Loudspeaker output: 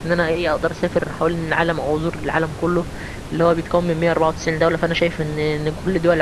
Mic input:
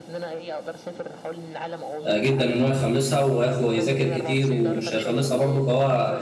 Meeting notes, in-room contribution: present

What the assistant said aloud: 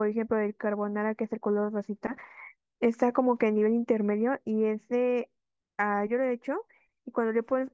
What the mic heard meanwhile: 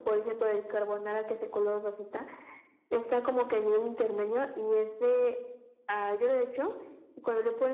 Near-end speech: none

